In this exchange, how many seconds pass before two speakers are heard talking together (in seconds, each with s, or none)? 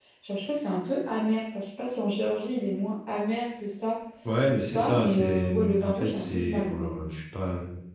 4.5 s